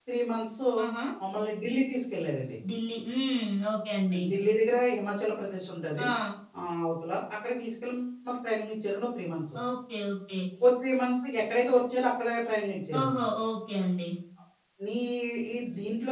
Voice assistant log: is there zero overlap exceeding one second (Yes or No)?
Yes